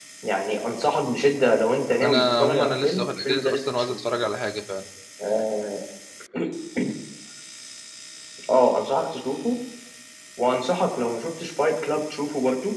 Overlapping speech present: Yes, from 2.0 s

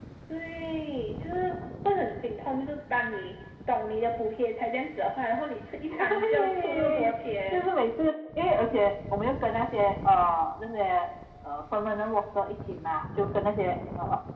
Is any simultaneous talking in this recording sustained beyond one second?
Yes, from 5.9 s

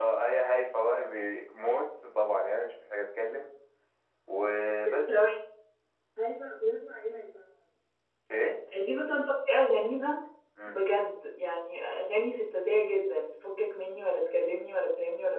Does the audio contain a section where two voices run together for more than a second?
No

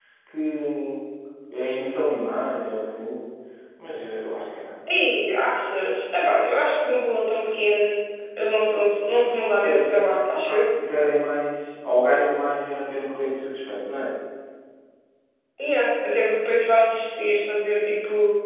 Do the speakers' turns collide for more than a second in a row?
No

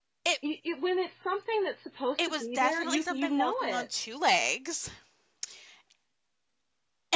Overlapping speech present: Yes, from 2.2 s

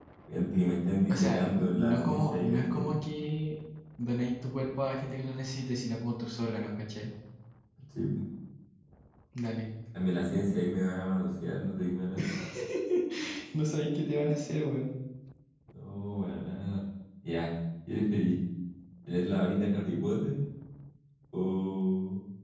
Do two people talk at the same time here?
Yes, from 1.1 s

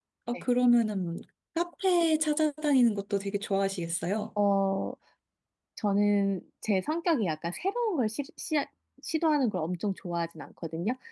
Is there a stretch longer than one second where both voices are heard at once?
No

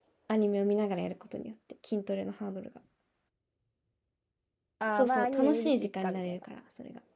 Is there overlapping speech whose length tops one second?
Yes, from 5.0 s

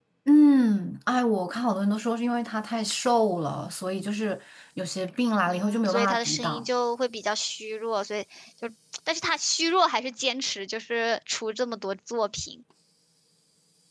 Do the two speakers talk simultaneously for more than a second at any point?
Yes, from 5.5 s

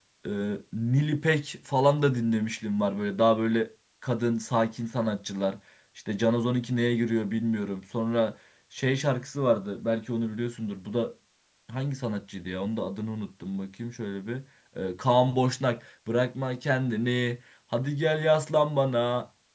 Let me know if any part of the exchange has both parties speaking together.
No

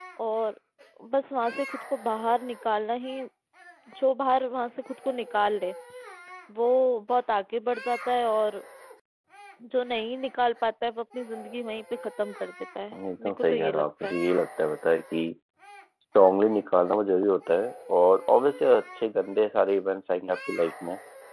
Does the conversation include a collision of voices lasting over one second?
Yes, from 12.9 s

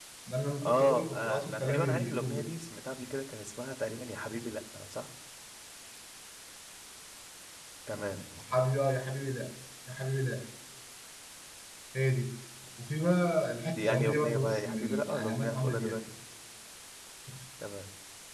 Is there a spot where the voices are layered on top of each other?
Yes, from 0.6 s

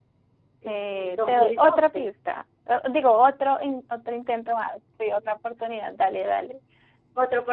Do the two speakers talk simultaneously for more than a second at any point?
Yes, from 0.6 s

